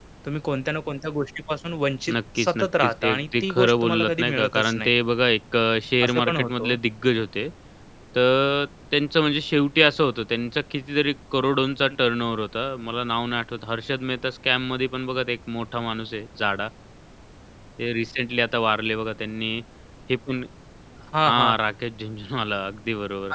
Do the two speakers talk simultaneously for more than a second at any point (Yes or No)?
Yes